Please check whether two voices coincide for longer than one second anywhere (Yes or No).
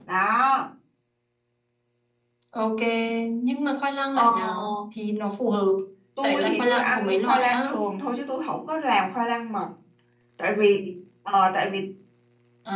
Yes